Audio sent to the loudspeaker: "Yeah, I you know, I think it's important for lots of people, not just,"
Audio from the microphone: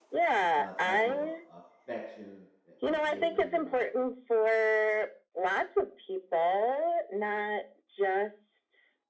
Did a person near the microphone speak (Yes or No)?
Yes